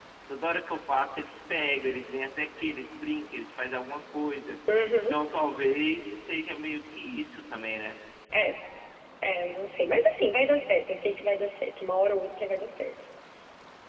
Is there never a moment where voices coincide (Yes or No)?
Yes